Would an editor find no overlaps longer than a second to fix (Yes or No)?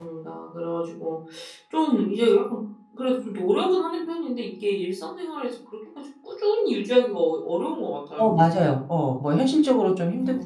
Yes